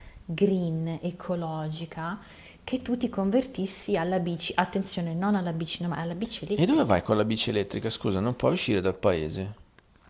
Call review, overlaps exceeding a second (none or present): none